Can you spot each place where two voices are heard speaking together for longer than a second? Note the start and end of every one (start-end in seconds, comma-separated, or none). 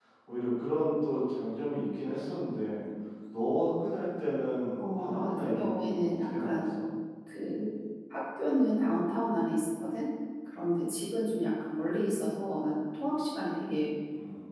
4.8-6.6